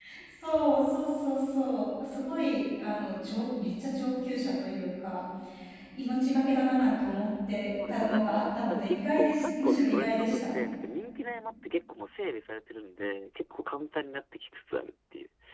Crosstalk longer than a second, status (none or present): present